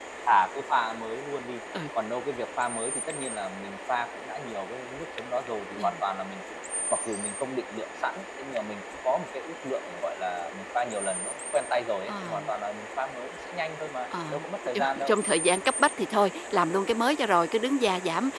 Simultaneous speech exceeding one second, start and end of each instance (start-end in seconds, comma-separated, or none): none